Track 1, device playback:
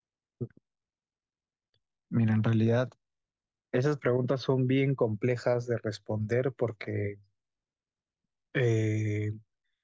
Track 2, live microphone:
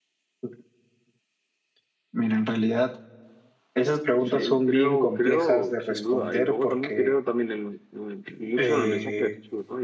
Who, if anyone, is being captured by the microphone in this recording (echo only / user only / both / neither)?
both